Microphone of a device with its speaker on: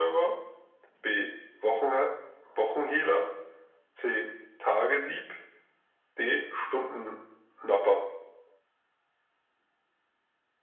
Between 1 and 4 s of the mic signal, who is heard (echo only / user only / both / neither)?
echo only